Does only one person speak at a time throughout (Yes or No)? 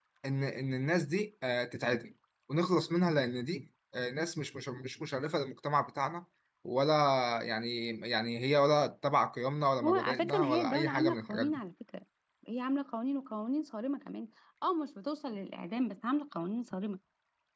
No